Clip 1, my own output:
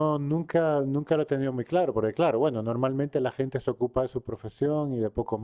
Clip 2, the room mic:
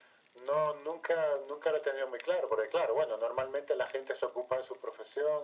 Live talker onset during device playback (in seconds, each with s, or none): none